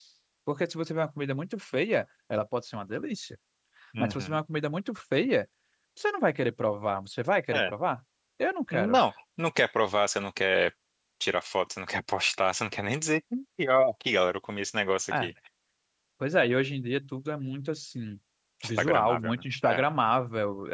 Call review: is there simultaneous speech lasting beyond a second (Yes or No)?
Yes